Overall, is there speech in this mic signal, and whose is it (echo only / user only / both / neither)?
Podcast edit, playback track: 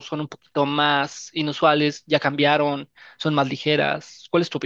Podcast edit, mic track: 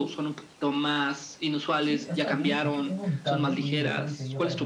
both